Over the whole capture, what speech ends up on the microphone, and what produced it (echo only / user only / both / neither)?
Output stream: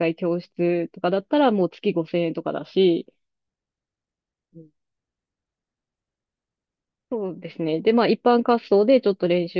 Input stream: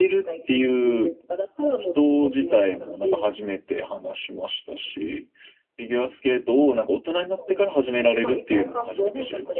both